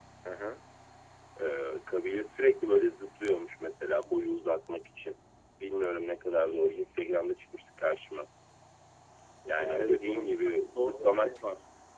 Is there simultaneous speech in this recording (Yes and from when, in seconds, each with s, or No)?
Yes, from 9.6 s